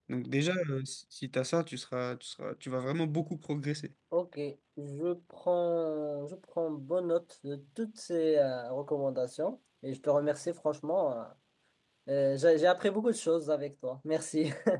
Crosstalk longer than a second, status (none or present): none